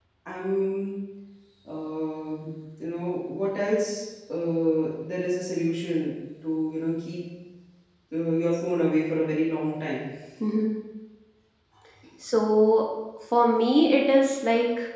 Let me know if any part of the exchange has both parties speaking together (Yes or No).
No